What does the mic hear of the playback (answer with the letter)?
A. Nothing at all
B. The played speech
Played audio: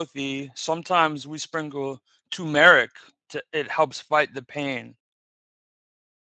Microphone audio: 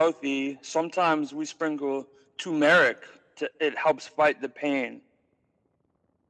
B